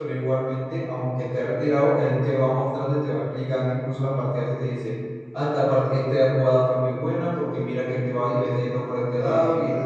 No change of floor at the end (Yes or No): Yes